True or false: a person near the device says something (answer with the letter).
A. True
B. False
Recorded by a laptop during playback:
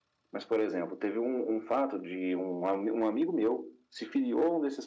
B